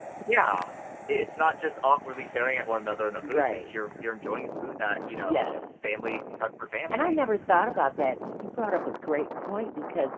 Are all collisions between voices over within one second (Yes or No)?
Yes